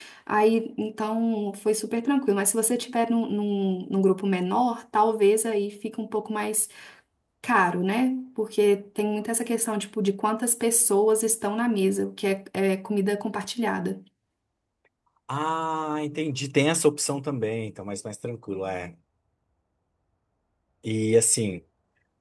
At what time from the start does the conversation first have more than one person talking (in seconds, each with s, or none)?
none